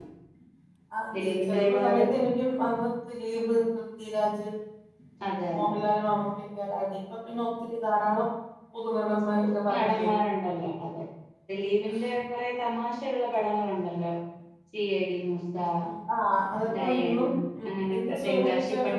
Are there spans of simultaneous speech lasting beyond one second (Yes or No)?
Yes